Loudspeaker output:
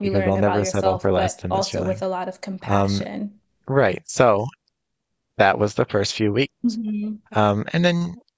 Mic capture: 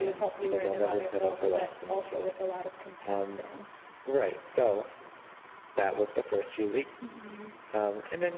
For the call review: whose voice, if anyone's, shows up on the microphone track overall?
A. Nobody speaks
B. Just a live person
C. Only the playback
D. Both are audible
C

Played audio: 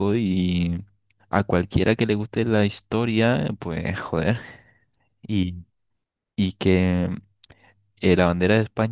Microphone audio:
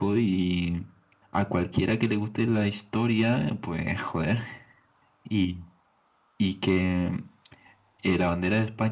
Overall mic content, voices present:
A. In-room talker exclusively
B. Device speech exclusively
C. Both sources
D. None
B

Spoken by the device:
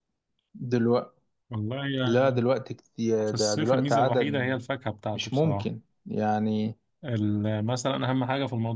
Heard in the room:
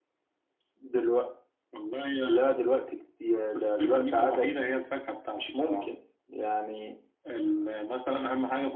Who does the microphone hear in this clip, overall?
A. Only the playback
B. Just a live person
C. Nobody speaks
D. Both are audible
A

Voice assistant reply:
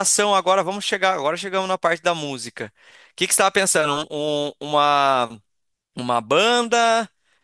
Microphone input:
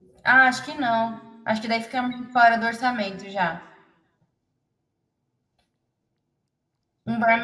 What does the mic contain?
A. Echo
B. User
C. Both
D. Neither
B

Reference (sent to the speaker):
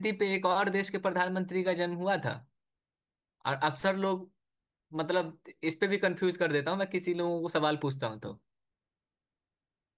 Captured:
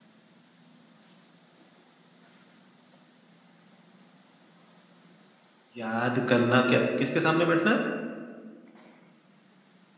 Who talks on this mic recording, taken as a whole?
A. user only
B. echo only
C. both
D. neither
A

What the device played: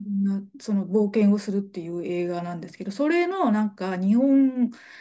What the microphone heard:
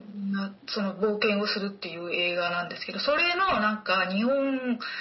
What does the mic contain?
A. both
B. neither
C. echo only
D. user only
C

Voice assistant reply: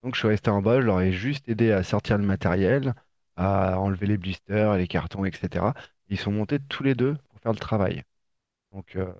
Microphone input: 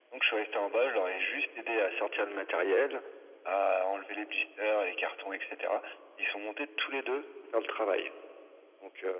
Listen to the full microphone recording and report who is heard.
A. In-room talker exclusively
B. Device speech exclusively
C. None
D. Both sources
B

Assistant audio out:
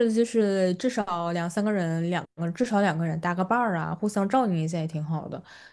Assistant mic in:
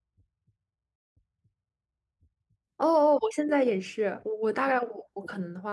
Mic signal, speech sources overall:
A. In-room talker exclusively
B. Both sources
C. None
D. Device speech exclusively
A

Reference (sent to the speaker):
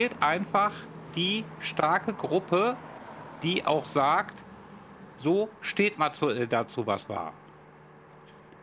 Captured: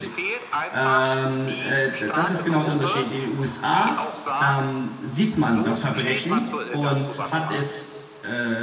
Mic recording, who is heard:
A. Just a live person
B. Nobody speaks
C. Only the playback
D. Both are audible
D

